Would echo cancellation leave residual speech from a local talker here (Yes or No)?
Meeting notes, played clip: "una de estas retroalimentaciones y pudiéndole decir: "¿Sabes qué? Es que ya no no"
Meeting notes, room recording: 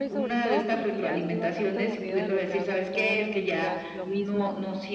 Yes